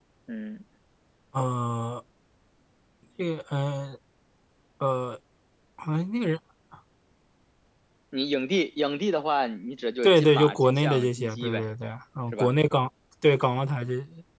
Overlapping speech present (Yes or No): Yes